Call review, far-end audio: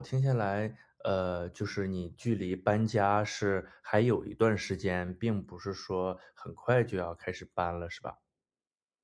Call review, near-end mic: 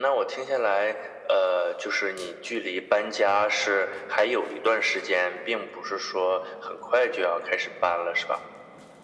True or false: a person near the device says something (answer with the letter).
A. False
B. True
A